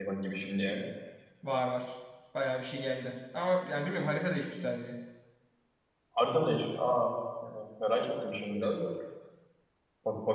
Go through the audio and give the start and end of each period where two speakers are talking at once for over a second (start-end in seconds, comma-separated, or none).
none